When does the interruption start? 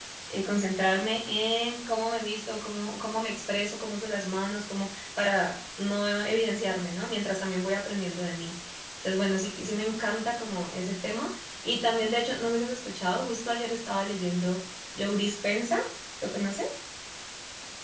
none

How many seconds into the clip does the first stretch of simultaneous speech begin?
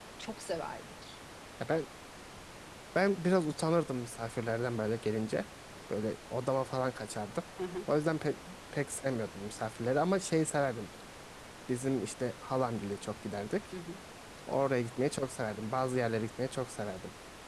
none

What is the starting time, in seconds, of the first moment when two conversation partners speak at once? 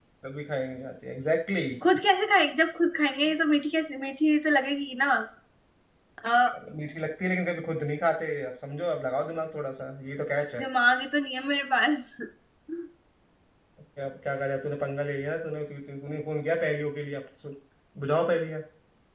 none

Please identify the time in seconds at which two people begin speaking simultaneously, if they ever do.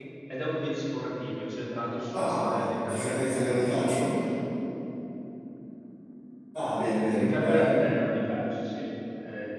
2 s

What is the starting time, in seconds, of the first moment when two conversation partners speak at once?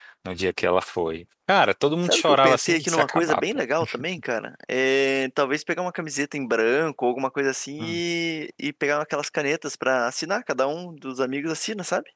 2 s

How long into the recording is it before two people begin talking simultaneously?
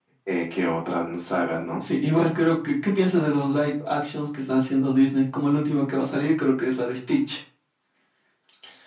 none

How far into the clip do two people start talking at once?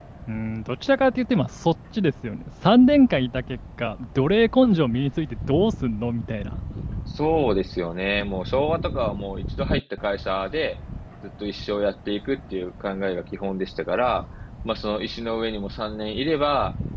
none

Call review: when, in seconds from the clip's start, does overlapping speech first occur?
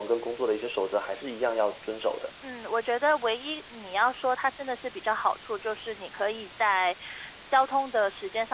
none

